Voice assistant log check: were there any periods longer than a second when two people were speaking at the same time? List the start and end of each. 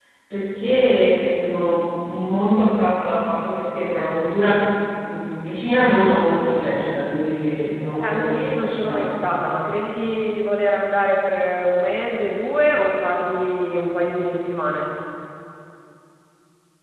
8.0-9.2

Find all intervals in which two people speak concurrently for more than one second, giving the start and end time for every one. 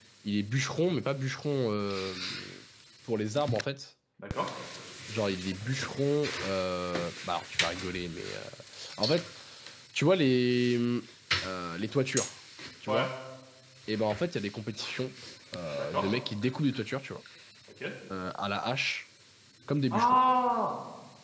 none

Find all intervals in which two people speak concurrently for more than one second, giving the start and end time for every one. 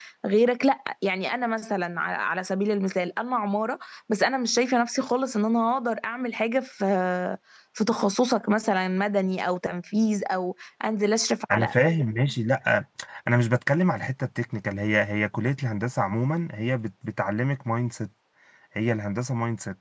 none

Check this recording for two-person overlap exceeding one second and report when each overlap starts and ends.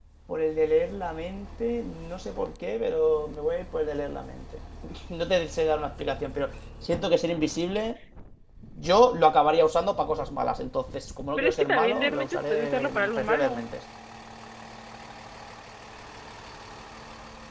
11.4-13.6

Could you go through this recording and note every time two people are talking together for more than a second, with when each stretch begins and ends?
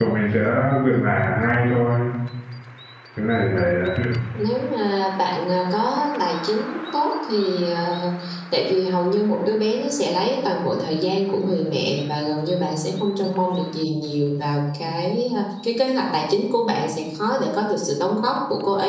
none

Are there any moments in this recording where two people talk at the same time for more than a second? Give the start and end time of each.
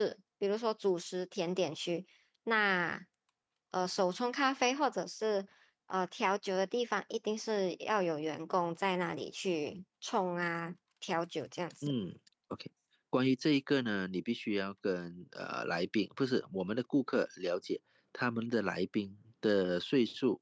none

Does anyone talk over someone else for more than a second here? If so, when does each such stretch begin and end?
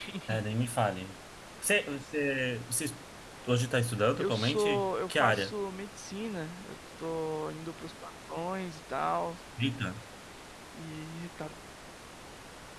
4.2-5.5

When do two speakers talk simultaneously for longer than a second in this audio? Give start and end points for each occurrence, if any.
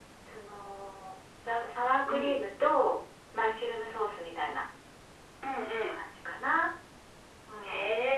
none

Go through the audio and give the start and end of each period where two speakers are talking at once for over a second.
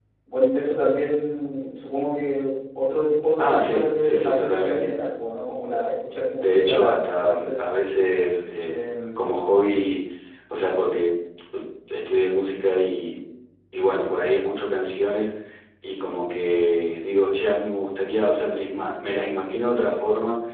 3.4-4.9, 6.4-7.6

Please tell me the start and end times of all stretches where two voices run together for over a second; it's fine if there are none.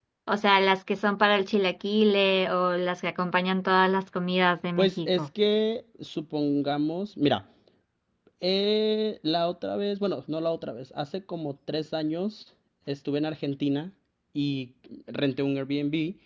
none

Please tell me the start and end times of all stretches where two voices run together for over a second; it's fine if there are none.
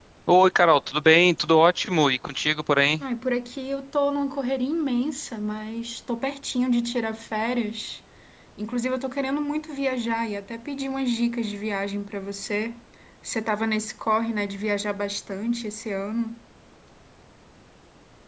none

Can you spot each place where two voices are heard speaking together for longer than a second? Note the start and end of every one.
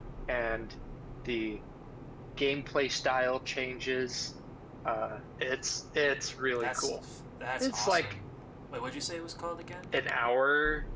none

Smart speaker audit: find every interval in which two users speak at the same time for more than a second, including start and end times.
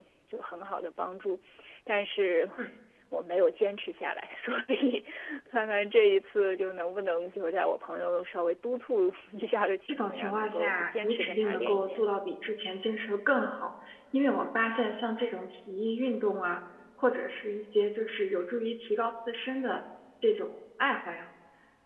9.9-12.0

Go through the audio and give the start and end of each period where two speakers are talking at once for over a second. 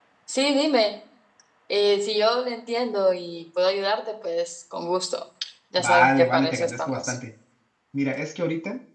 5.8-7.1

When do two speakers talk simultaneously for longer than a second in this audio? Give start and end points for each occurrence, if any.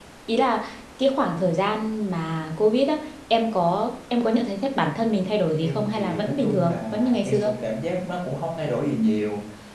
5.6-7.5

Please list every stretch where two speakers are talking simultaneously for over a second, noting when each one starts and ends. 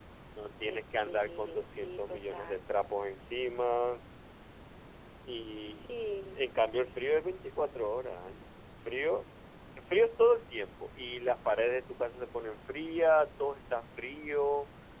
0.6-2.6

